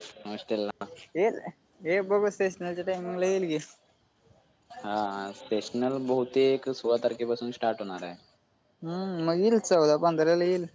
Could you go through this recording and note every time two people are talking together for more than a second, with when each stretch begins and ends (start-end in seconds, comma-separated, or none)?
none